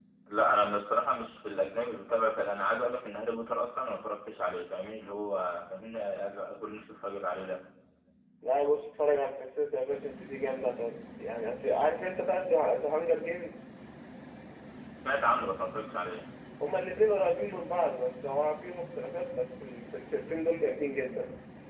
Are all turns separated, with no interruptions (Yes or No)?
Yes